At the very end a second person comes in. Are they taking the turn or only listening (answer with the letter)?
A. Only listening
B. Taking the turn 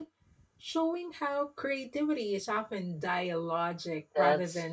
B